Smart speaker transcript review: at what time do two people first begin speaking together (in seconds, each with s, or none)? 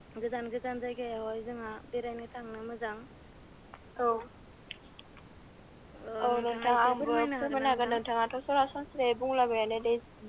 6.2 s